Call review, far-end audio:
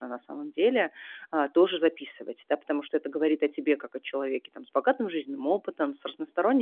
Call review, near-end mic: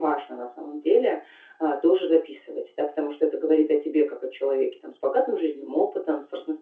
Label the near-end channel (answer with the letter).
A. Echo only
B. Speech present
A